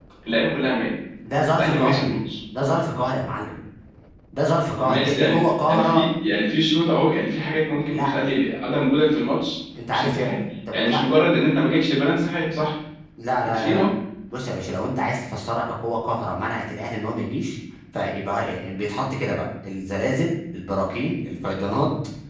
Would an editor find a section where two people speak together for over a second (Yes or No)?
Yes